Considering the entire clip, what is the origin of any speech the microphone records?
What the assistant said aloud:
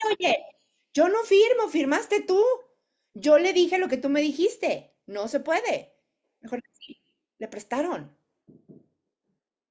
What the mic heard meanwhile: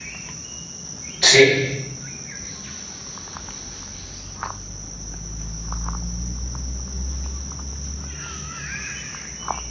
user only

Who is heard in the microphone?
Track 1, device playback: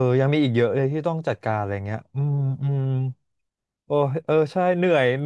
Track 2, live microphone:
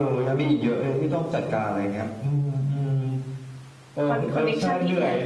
both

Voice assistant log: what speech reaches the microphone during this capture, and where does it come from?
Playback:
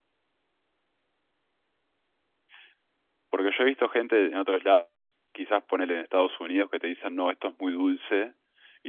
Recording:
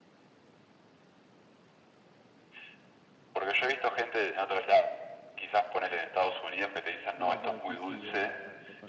both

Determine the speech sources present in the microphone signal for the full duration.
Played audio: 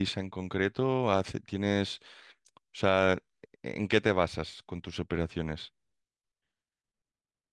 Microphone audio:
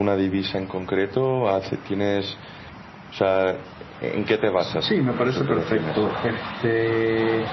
both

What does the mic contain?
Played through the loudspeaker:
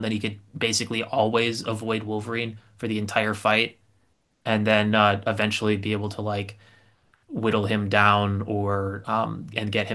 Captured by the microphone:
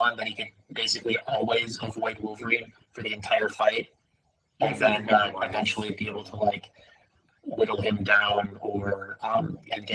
both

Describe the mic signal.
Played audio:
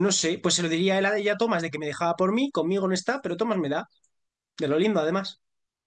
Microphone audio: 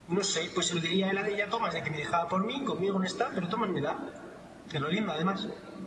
echo only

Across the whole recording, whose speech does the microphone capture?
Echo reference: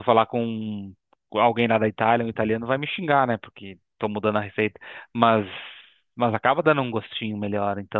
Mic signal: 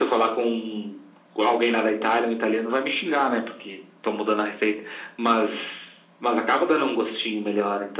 echo only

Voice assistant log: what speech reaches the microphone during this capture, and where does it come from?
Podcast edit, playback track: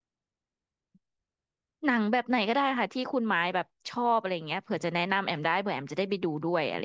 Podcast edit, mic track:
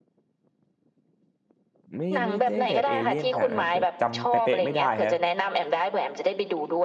both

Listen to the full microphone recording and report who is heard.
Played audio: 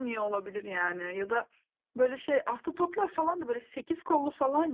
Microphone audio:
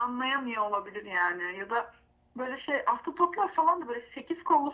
echo only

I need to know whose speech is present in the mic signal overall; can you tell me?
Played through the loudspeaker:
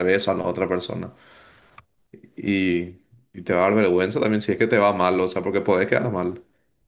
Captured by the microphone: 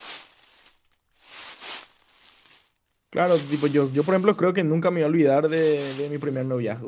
user only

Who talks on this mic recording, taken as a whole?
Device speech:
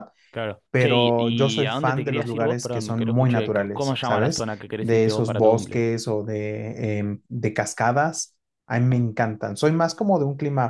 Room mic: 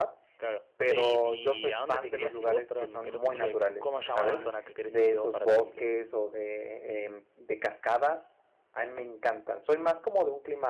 both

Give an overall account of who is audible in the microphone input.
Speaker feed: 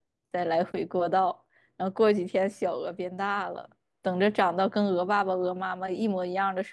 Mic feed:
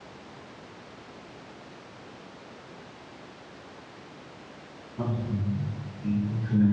user only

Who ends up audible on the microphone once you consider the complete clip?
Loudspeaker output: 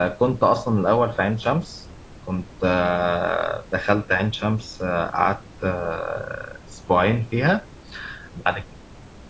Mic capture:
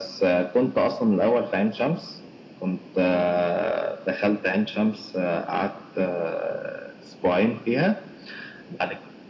echo only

